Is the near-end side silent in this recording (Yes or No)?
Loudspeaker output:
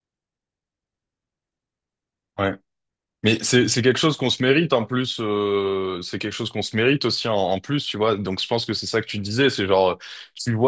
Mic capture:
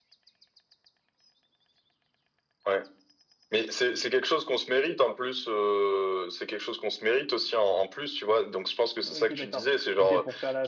No